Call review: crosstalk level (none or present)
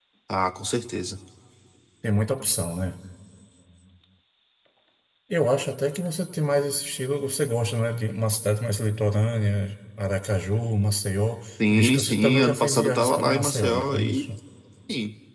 present